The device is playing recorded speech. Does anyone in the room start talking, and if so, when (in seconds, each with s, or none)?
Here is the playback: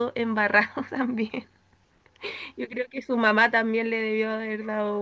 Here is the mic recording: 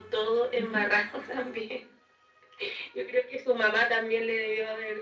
0.6 s